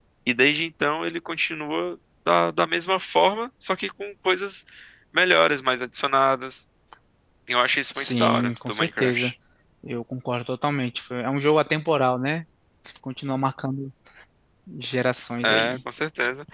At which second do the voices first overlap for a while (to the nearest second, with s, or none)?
8 s